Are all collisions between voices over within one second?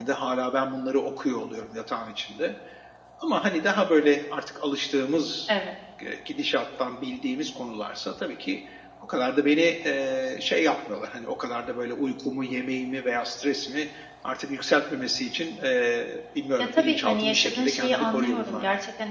No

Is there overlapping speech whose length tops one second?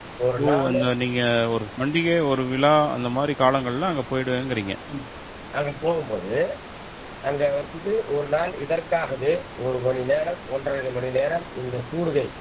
No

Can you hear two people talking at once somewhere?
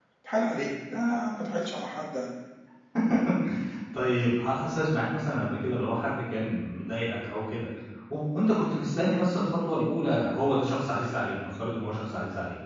No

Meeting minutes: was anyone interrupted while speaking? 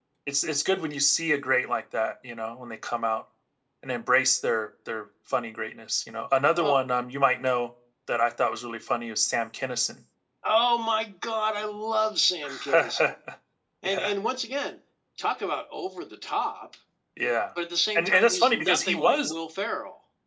Yes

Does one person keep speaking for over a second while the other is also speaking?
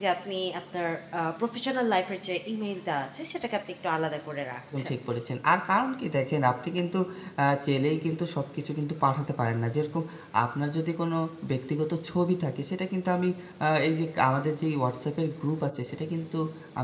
No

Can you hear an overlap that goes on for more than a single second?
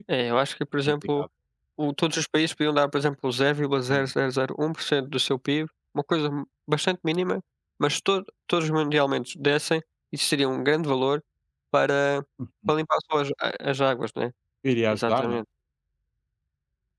No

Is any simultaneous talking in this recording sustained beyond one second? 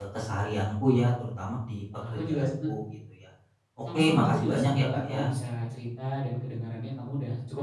Yes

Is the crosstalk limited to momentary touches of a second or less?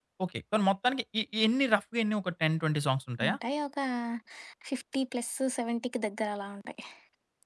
Yes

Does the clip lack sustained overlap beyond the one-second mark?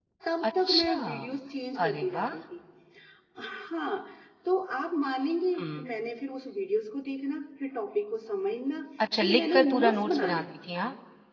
No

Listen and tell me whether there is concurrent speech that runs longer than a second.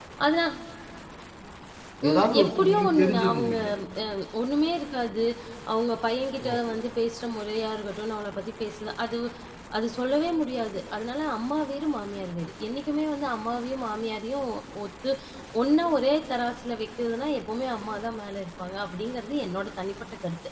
Yes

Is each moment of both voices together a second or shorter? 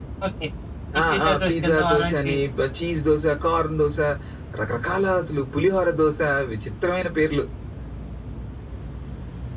No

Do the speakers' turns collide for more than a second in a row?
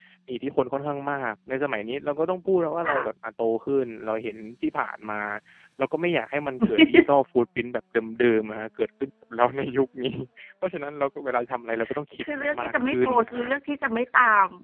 Yes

